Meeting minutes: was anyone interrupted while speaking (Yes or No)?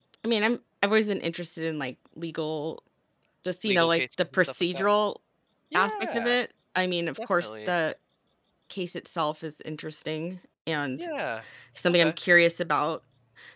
Yes